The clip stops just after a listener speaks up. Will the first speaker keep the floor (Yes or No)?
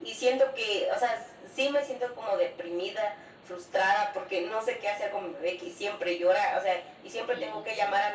Yes